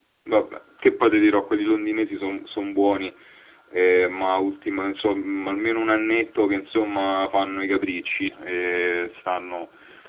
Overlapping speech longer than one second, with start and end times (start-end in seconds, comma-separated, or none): none